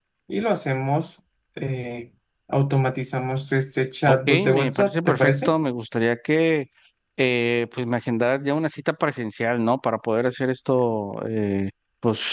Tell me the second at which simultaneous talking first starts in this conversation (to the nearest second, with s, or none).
4 s